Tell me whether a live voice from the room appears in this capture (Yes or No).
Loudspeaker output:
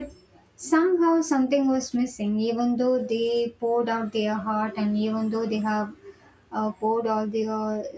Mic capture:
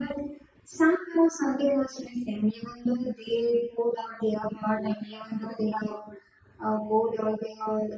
No